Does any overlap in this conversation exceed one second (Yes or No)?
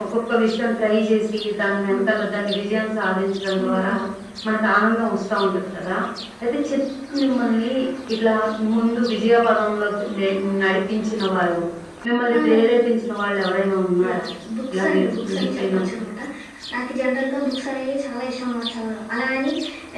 Yes